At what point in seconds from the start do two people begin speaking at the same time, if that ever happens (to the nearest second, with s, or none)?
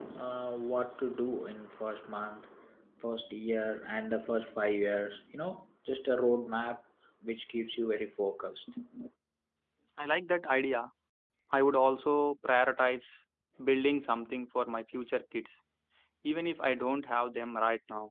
none